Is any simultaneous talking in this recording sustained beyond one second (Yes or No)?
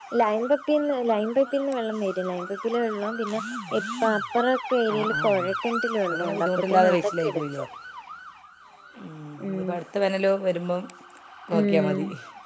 Yes